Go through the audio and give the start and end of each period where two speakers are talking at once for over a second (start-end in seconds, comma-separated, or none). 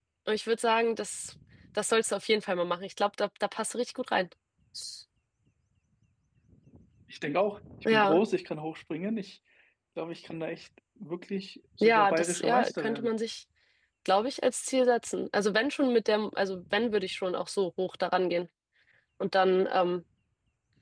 11.8-13.1